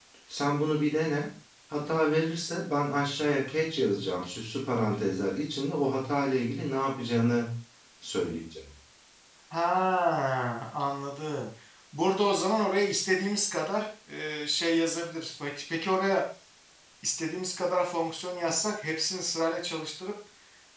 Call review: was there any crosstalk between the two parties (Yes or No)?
No